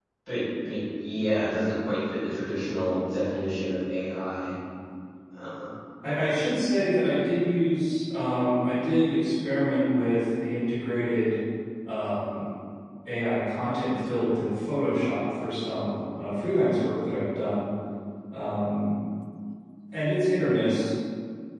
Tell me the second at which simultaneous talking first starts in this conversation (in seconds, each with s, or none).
none